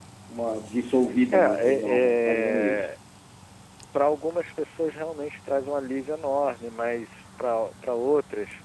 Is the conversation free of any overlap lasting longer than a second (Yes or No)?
No